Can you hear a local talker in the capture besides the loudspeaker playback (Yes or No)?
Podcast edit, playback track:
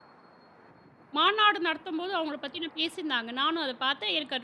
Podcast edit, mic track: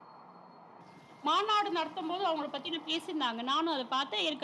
No